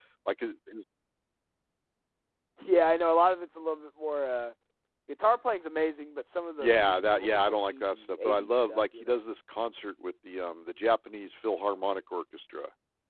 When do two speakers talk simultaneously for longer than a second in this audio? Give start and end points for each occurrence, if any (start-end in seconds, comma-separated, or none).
6.6-9.2